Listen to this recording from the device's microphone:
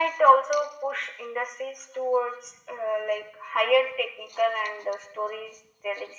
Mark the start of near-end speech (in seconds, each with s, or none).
none